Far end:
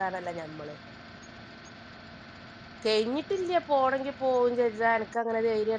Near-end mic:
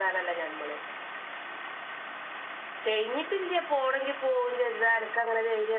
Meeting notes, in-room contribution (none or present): none